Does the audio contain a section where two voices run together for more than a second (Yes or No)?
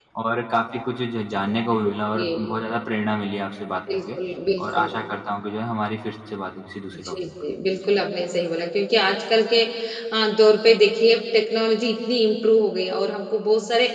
No